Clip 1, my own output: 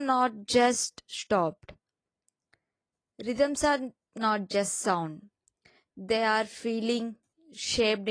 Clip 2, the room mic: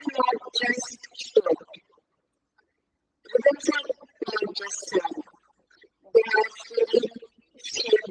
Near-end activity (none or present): none